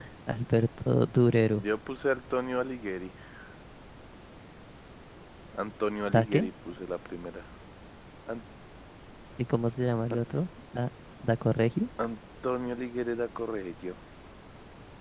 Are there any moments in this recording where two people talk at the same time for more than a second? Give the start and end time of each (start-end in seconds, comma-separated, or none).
none